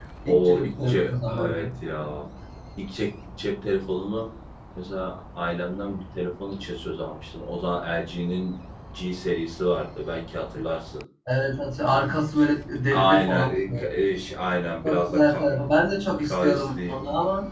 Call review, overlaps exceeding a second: present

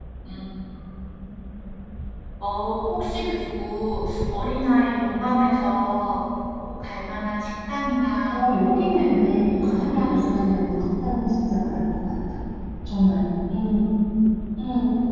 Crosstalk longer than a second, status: present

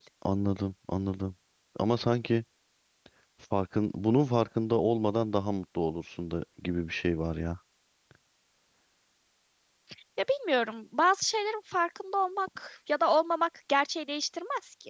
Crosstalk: none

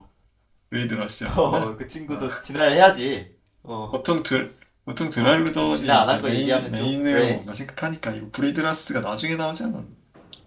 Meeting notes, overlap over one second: present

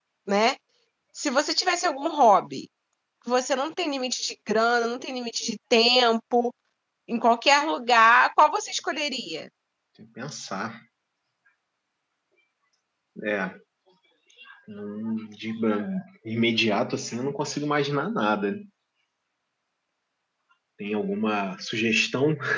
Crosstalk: none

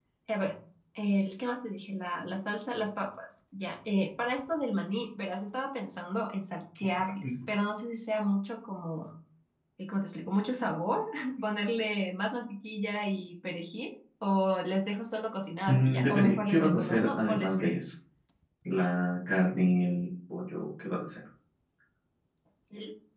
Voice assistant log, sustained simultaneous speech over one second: present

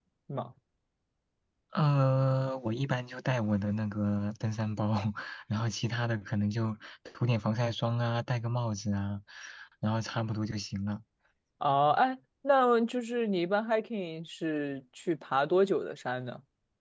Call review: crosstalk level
none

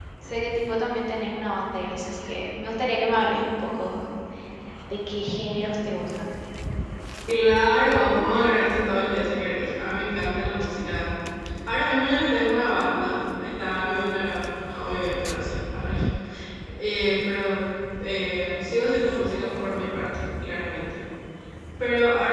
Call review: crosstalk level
none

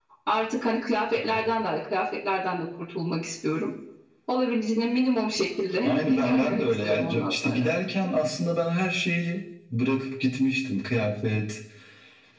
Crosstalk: present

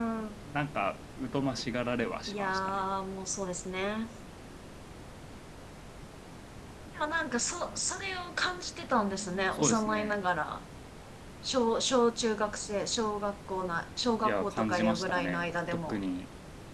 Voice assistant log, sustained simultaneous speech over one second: present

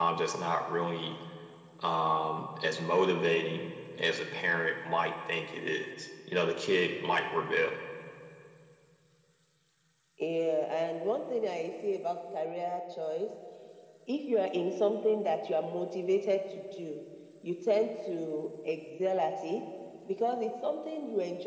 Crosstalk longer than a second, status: none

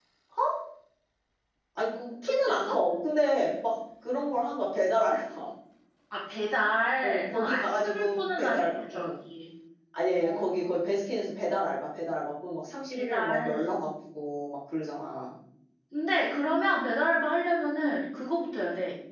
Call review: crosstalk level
present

